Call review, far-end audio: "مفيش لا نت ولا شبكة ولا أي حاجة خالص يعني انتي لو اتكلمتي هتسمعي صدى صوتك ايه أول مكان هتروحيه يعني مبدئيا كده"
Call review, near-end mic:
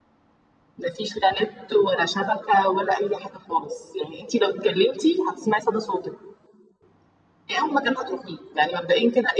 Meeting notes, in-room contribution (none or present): none